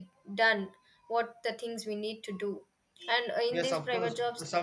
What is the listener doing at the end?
taking over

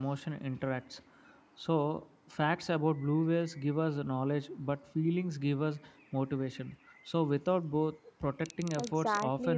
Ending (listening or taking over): taking over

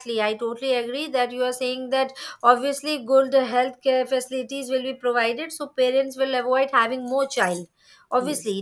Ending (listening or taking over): listening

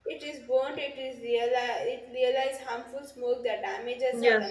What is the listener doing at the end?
taking over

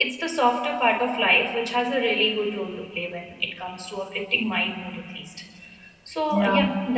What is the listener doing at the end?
listening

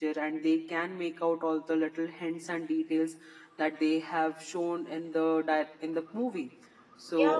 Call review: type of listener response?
taking over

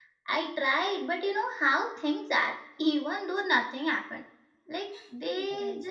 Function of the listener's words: listening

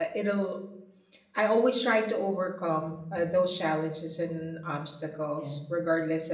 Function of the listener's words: listening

